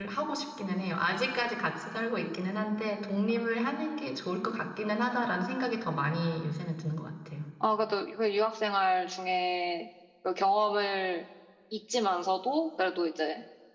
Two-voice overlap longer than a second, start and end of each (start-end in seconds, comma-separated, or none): none